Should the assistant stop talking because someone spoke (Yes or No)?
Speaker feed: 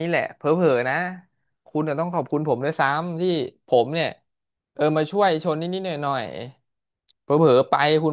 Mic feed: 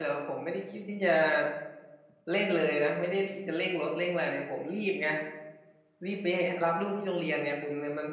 Yes